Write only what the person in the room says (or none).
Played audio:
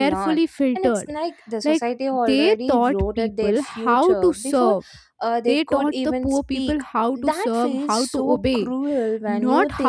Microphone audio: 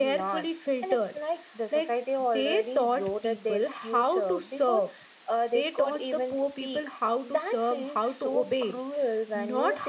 none